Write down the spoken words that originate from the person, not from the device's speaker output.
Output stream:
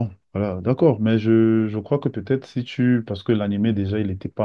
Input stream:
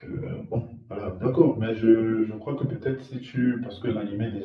none

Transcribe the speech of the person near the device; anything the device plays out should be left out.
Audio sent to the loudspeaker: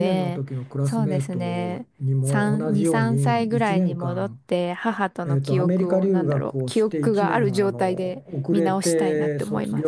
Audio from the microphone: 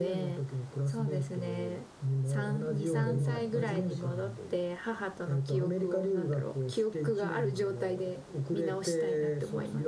誰もあありかを知らないという。

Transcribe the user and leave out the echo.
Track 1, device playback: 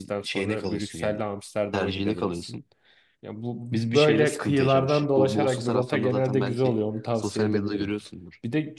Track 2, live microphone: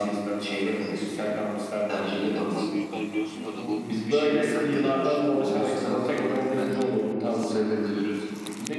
Hayatın abi büyükler biliyorsundur da bu

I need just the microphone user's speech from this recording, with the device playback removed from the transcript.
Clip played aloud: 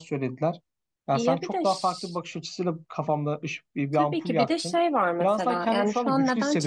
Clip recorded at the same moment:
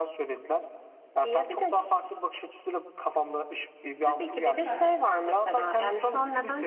Süper.

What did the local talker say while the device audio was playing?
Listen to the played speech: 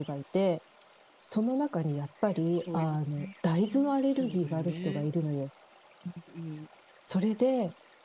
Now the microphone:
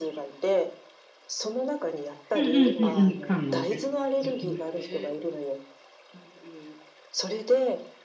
うん、うん、うん、うん。缶のね。うん、うん。

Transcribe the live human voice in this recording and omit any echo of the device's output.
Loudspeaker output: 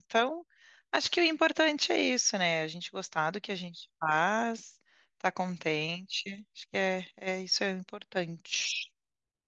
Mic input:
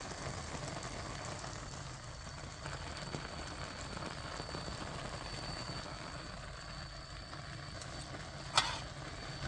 none

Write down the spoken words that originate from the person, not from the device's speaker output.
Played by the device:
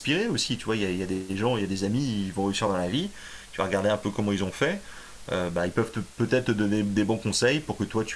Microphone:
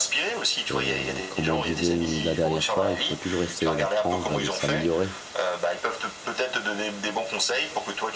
Et comme on disait une- la dernière fois, il faut toujours essayer d'apprendre et de s'améliorer.

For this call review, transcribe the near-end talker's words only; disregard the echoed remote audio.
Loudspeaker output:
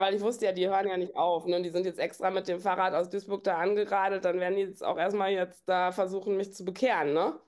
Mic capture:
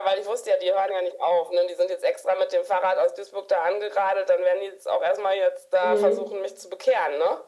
Mhm.

